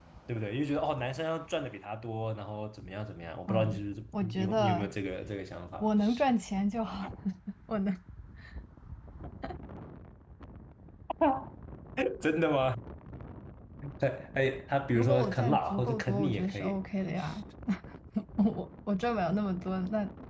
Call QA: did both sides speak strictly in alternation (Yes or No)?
No